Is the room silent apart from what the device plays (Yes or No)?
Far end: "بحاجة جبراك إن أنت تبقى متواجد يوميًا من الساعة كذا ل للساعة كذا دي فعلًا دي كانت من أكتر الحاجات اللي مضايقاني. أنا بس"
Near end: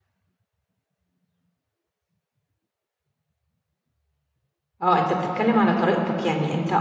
No